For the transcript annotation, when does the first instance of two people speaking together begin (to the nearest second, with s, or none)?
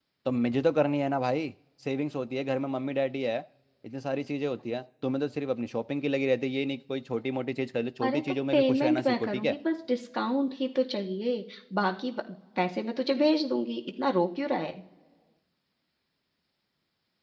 8 s